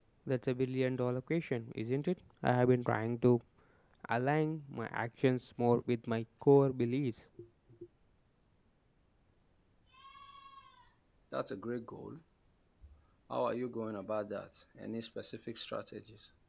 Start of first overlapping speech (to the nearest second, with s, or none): none